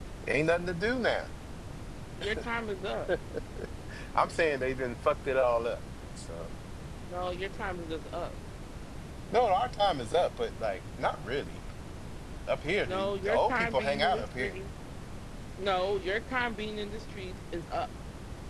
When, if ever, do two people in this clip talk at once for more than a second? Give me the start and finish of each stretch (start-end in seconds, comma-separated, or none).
12.8-14.6